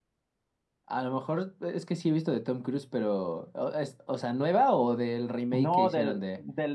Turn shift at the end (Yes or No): Yes